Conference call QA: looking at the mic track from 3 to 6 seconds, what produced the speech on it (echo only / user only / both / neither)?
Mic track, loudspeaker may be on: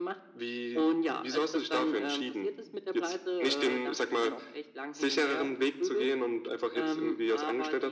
echo only